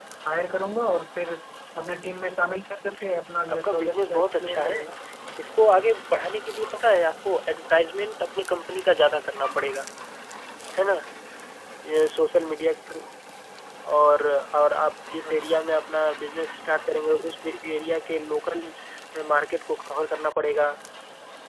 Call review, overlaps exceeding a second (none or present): present